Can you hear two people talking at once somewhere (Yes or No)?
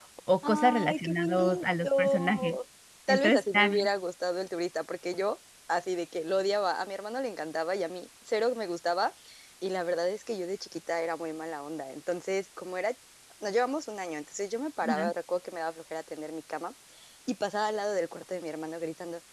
Yes